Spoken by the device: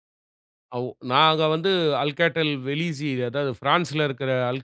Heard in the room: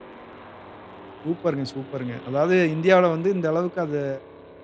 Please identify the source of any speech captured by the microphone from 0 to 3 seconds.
user only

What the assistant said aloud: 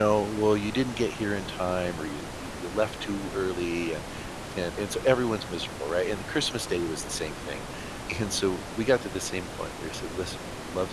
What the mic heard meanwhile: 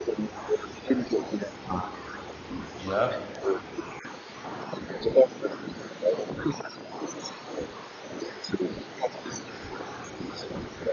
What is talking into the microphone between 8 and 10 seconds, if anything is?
echo only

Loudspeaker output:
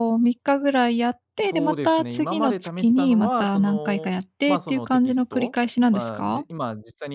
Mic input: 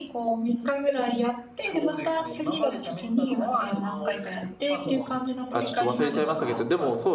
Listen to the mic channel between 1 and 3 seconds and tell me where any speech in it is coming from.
echo only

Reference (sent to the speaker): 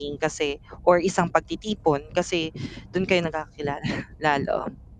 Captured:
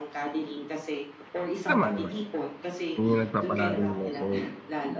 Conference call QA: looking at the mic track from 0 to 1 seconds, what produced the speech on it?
echo only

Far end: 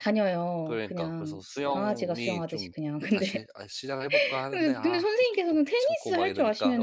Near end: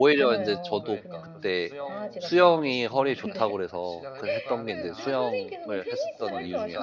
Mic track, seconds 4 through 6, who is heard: both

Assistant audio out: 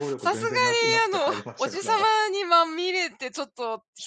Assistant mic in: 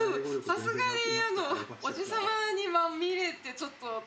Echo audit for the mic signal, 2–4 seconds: echo only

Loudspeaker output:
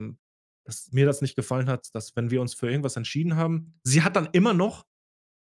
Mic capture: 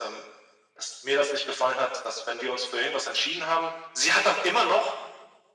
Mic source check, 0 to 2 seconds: echo only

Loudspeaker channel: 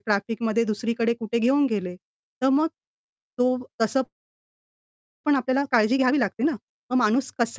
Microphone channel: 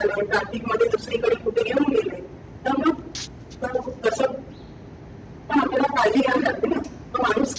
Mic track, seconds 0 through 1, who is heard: echo only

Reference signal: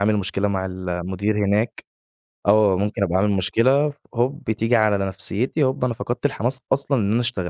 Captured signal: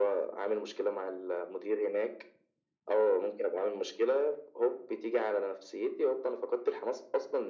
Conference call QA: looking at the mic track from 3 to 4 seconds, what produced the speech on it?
echo only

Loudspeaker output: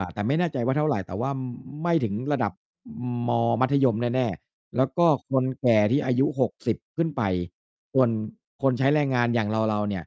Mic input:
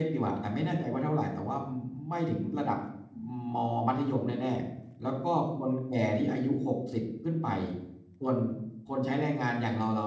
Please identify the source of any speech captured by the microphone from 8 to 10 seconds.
echo only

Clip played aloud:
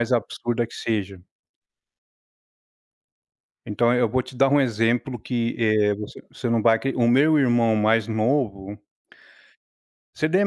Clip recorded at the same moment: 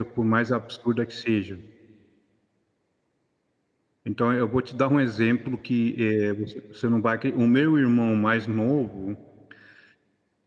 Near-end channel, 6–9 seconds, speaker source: echo only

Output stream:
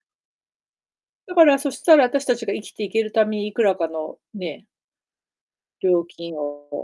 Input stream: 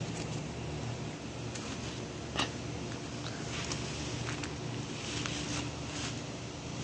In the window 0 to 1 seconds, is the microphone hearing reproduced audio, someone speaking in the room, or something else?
neither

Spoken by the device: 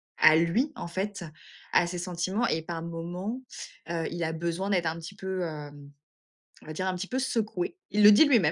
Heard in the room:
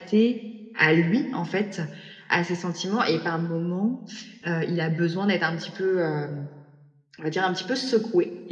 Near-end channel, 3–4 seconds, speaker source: echo only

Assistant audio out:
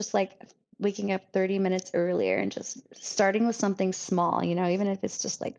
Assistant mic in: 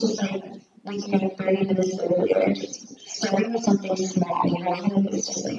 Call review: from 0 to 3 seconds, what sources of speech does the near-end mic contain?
echo only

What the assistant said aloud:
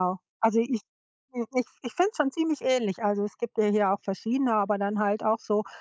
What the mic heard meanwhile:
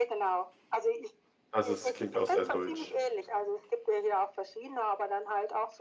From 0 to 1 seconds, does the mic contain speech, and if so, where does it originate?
echo only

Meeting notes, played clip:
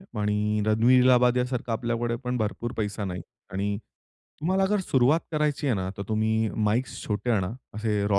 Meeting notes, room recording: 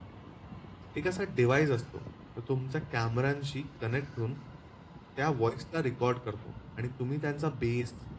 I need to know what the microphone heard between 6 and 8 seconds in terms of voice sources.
user only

